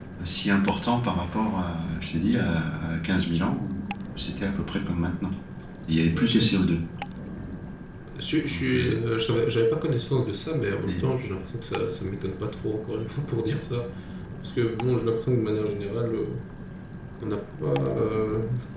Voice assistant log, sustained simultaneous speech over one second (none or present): none